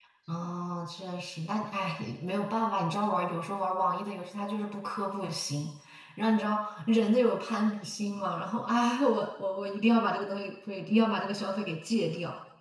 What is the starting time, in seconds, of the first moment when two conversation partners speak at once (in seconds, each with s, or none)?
none